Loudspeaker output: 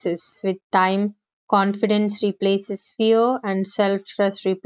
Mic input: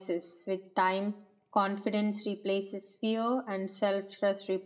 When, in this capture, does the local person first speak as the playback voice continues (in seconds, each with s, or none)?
none